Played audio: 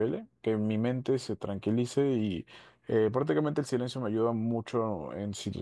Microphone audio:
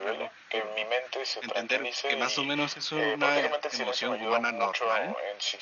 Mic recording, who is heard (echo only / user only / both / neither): both